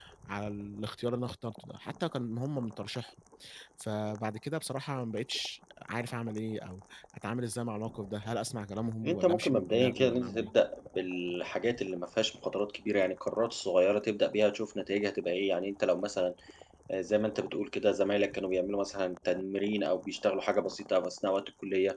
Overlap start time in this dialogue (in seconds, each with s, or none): 9.0 s